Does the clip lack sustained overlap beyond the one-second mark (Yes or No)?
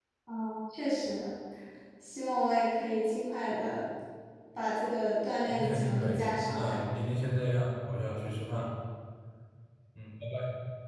No